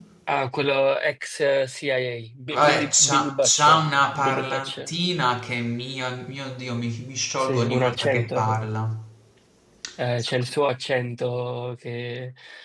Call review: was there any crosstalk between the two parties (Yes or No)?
Yes